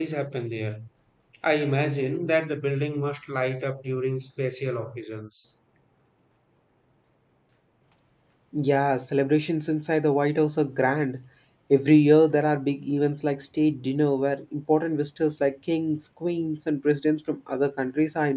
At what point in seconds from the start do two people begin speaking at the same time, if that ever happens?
none

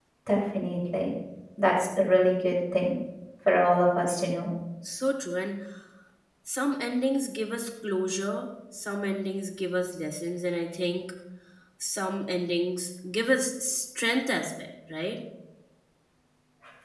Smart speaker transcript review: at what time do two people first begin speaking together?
none

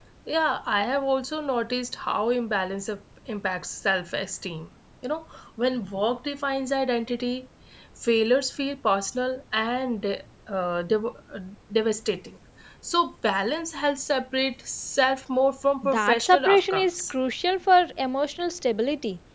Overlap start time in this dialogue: 16 s

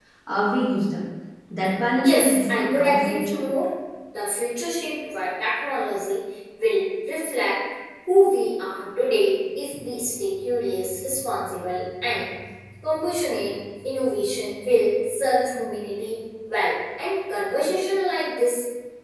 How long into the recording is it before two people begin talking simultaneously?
2 s

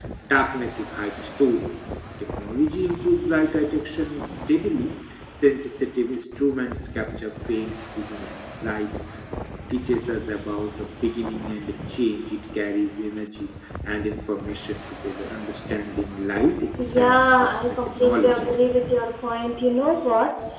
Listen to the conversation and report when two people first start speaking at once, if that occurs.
17 s

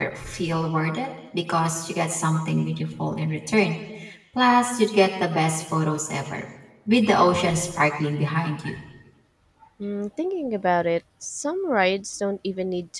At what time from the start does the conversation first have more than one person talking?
none

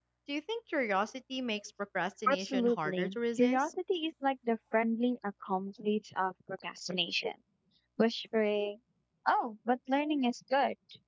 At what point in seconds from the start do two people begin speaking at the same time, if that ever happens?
2 s

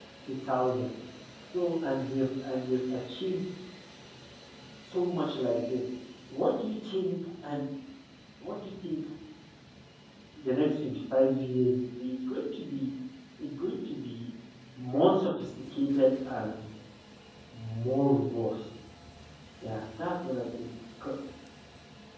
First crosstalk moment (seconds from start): none

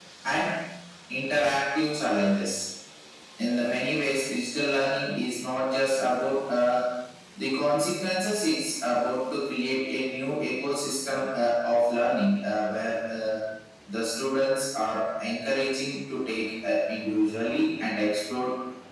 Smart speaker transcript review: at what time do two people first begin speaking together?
none

